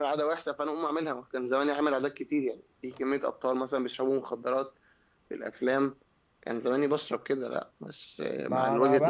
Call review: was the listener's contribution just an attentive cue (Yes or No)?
No